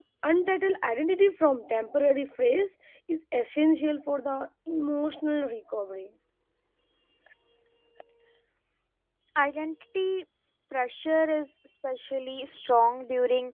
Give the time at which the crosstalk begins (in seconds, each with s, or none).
none